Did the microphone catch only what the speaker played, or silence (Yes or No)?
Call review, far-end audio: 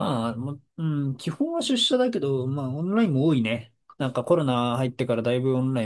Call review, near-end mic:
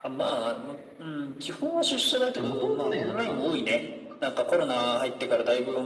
No